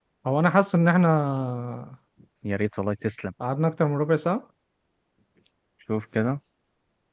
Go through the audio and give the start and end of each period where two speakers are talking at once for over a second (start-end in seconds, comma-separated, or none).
none